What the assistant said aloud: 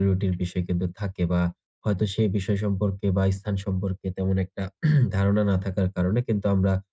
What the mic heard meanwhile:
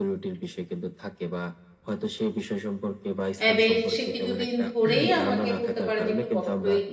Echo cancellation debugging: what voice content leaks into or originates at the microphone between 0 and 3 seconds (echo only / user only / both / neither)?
echo only